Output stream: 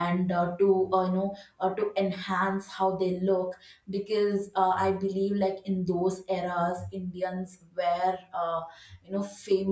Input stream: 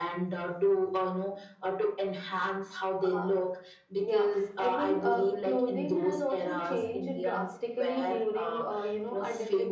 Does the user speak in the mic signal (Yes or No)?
Yes